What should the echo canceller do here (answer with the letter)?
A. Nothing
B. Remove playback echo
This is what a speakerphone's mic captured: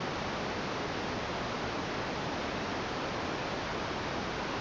A